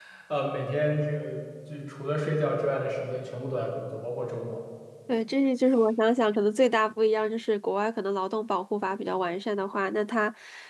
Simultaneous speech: No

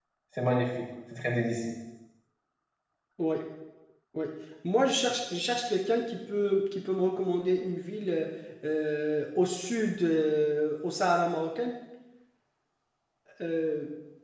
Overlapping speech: No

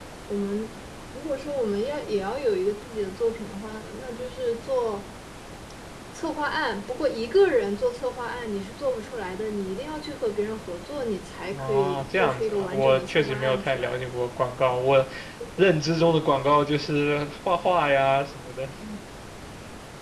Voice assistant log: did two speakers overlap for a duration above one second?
Yes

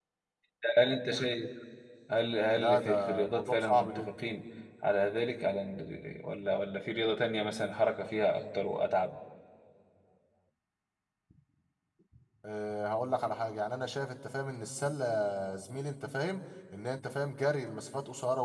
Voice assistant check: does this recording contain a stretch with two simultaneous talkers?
Yes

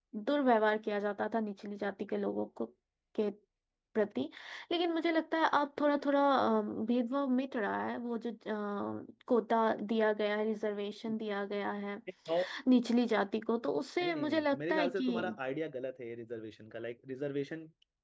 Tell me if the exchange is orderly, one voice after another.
No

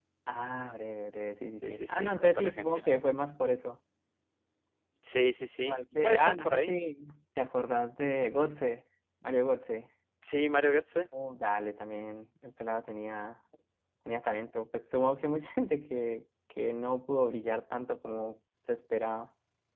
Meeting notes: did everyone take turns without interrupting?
No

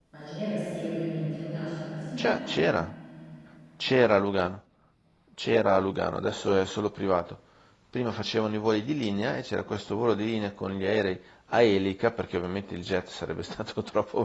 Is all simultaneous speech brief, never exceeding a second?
Yes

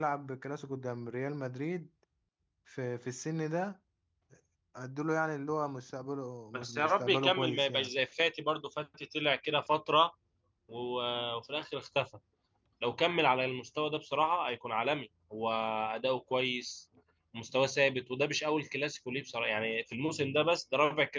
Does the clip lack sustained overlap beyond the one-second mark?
No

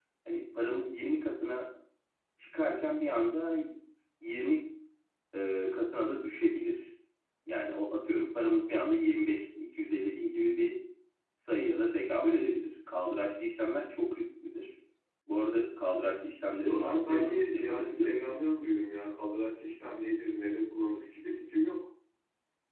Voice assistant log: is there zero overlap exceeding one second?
No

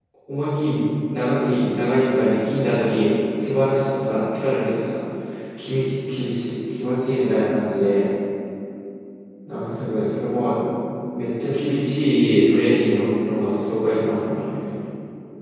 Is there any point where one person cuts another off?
No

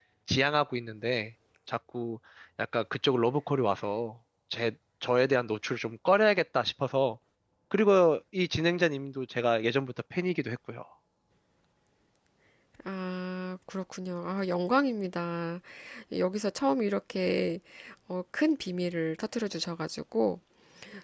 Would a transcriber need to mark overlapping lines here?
No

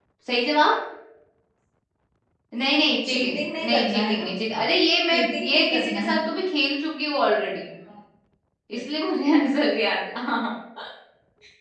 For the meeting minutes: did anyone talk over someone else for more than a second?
Yes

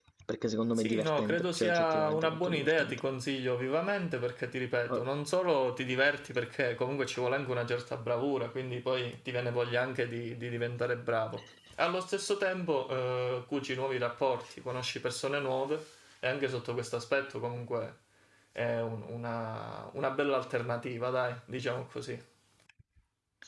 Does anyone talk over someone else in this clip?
Yes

